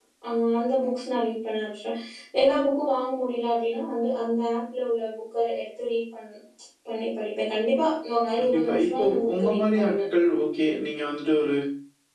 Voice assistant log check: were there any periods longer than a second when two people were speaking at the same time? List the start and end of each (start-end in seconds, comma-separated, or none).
8.4-9.9